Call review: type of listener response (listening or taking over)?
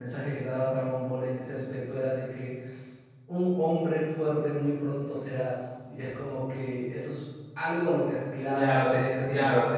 taking over